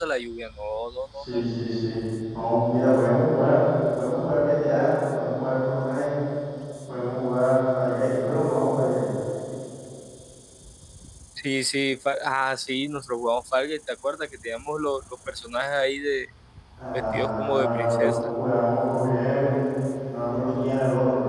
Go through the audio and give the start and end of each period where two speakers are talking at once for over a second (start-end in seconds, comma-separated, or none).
16.9-18.2